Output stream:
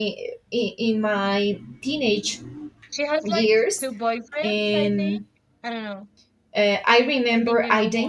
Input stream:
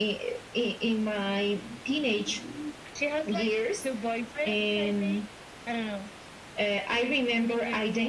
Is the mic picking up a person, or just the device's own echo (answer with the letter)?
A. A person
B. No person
B